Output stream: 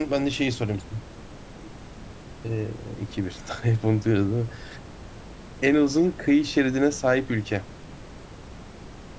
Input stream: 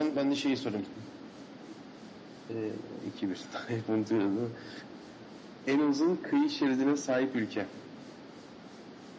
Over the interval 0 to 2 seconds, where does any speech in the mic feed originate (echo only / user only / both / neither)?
echo only